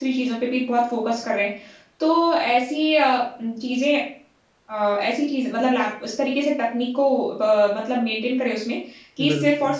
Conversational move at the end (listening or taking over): listening